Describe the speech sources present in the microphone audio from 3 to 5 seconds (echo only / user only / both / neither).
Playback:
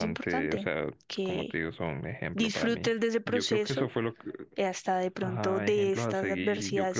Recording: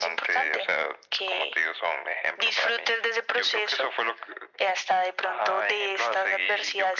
echo only